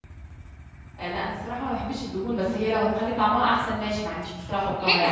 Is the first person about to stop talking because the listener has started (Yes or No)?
Yes